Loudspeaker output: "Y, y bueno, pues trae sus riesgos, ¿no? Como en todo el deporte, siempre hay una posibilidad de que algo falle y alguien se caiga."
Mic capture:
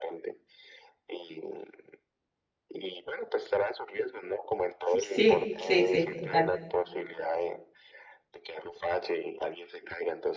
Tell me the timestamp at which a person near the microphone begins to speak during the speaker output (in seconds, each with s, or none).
5.0 s